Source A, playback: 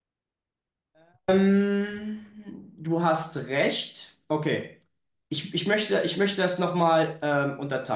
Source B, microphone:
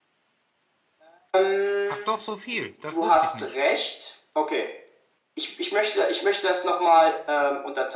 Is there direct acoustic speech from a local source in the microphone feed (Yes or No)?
Yes